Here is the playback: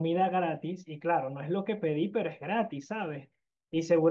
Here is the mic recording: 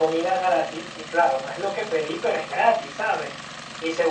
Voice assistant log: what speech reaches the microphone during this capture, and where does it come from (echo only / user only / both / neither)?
echo only